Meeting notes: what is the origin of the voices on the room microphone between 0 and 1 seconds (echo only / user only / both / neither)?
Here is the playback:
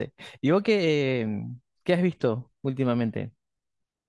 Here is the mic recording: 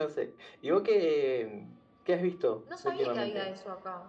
echo only